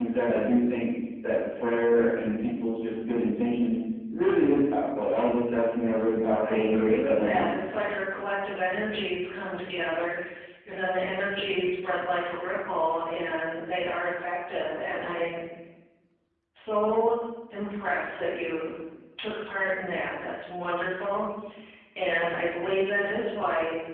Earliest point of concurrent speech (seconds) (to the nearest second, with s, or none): 6 s